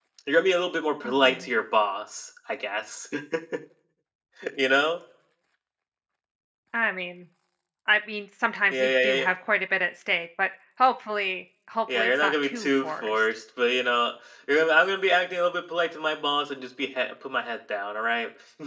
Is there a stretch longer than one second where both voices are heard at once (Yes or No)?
Yes